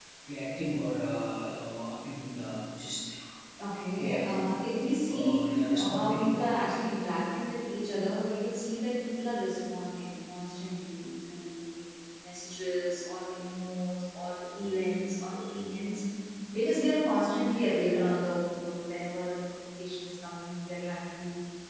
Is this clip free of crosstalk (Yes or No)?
No